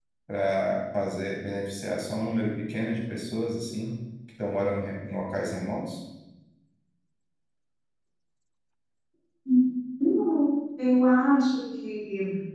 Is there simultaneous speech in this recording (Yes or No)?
No